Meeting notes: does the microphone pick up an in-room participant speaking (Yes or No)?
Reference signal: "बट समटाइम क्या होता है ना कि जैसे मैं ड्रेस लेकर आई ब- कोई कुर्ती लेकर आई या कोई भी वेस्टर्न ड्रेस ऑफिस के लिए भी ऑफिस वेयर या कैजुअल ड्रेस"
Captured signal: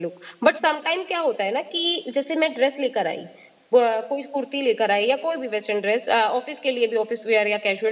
No